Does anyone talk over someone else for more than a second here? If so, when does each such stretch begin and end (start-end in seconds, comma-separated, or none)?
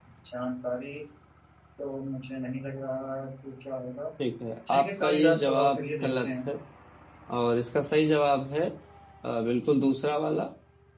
4.7-6.5